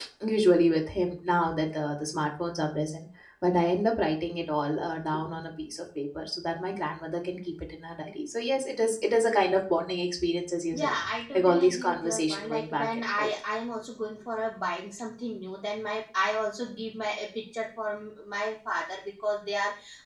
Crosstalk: present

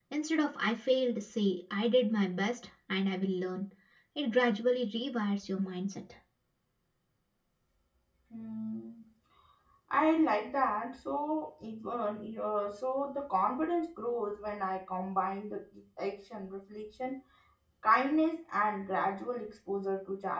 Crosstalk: none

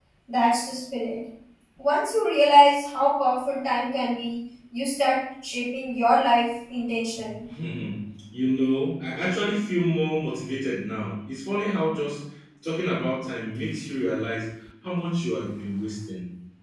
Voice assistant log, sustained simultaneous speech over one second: none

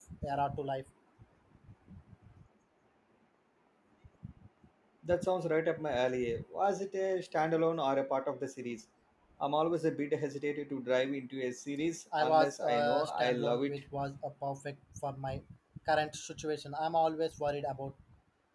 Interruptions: present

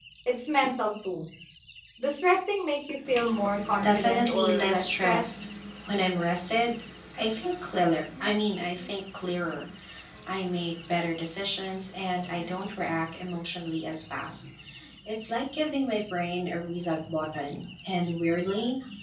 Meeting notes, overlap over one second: present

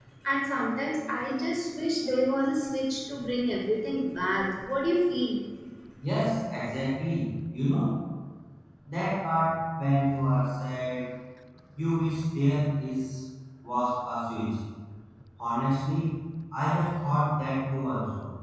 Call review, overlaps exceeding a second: none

